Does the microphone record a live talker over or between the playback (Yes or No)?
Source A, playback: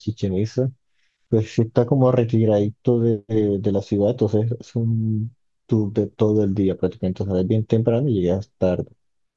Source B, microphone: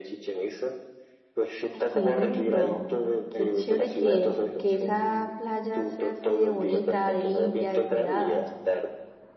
Yes